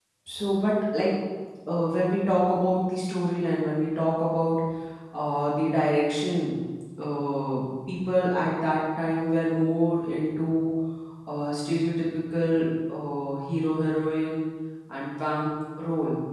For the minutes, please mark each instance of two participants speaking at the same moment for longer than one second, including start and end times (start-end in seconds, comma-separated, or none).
none